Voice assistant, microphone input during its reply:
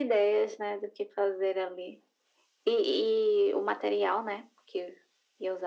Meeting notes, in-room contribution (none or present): none